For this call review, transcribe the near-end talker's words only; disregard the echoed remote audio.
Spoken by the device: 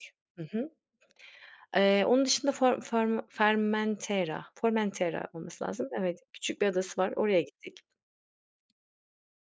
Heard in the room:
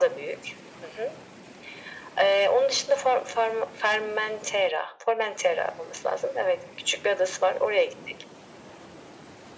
none

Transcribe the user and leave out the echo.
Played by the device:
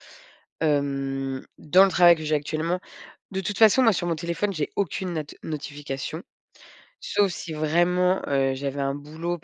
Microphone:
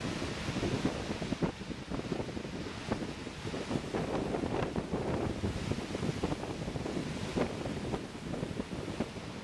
none

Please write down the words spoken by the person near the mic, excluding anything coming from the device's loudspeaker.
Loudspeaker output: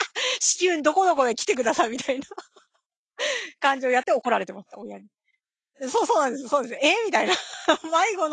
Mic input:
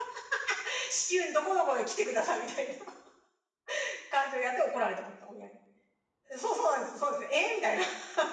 none

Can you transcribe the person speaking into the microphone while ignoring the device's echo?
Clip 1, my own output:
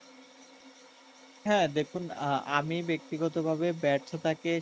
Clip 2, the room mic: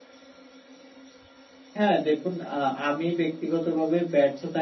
none

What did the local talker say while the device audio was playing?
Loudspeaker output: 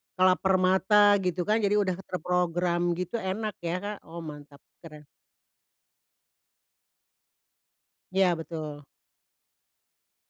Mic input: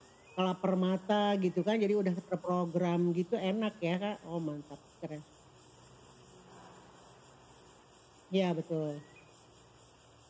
none

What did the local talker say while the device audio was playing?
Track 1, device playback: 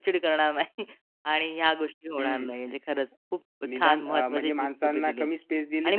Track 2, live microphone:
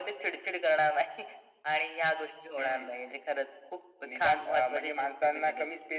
none

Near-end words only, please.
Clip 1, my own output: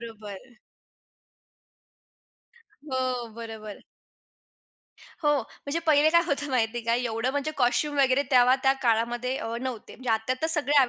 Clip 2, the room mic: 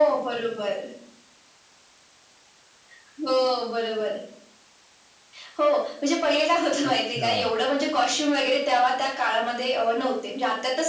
अच्छा.

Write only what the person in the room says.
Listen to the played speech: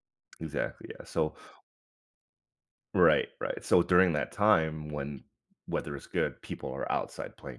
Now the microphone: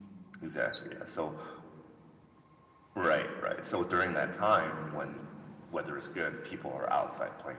none

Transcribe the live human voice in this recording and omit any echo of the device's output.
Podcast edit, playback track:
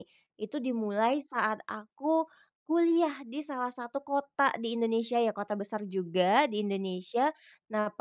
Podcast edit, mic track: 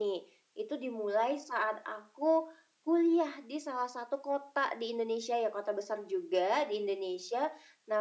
none

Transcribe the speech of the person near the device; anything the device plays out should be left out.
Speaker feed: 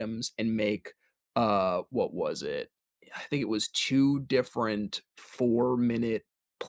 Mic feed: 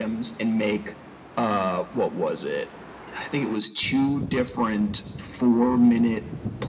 none

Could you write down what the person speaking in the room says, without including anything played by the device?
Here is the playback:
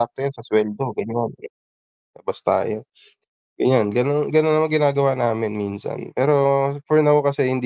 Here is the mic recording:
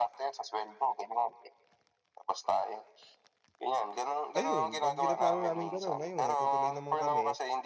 ayun, pag-pinaplano naming ganon ayun natutuloy naman kami.

